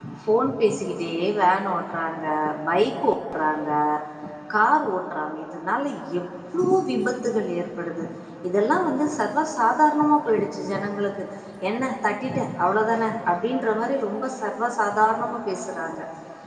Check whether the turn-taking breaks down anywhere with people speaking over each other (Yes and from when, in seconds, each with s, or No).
No